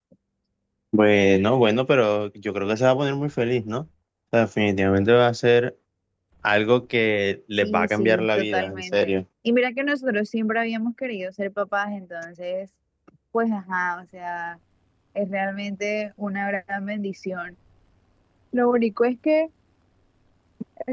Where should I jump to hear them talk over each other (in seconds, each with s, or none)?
7.6 s